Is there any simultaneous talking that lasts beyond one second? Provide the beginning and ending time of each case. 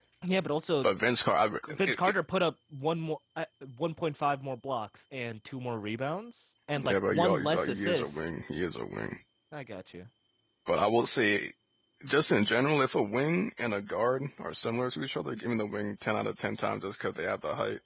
6.8-8.2

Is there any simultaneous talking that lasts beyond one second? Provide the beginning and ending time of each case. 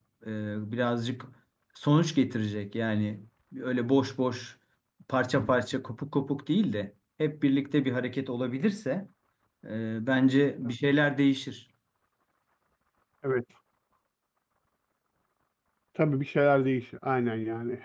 none

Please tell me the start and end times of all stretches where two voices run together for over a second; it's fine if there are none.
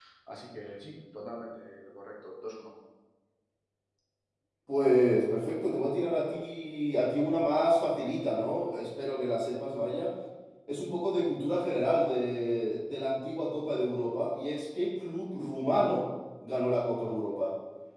none

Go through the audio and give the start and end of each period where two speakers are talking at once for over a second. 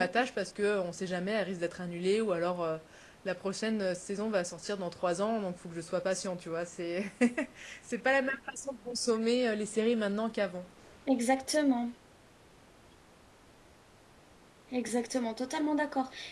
none

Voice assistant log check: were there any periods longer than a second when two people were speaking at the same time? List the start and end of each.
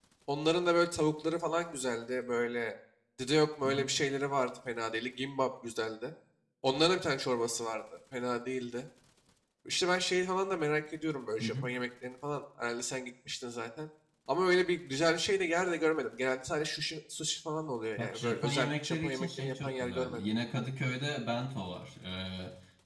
18.0-20.2

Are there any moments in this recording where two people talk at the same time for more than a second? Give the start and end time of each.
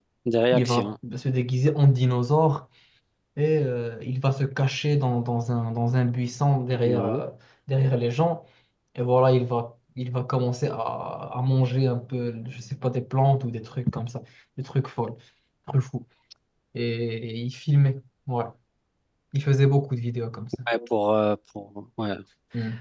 none

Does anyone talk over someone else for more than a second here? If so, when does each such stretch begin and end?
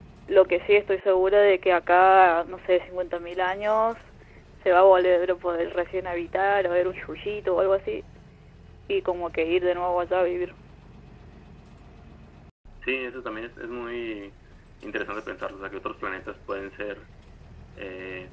none

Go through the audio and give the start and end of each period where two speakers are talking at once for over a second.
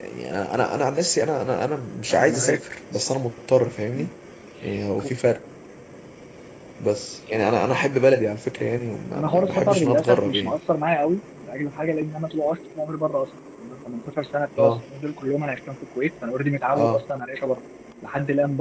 9.2-10.6

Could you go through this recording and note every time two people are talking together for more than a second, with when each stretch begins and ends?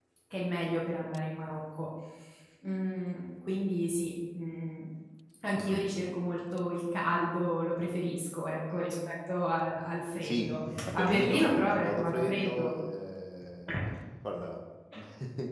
10.2-12.7

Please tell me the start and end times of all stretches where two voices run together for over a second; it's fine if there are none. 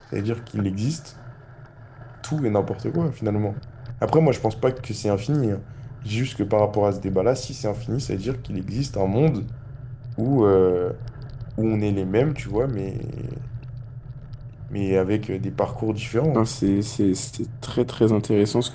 none

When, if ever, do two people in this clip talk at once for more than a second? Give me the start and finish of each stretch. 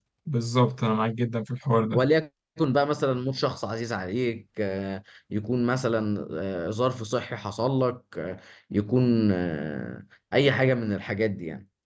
none

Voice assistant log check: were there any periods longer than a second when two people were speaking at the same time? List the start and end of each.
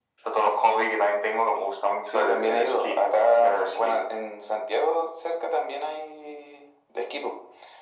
2.1-4.0

